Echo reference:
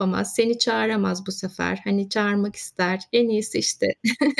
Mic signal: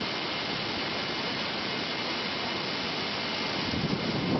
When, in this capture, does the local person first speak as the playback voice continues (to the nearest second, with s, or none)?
none